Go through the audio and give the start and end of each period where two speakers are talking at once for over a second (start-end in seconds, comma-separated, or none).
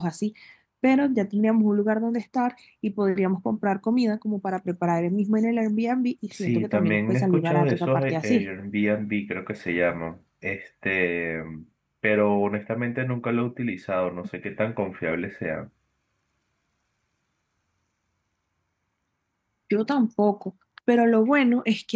6.4-8.4